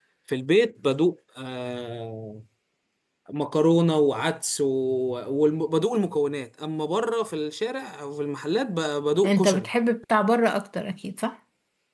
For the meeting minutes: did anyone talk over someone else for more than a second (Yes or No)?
No